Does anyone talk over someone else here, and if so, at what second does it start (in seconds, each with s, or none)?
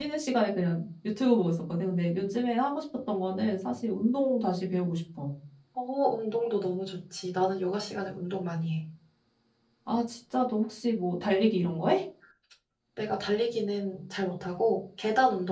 none